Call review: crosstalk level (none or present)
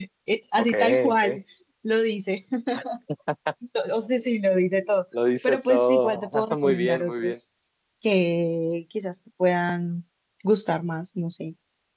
present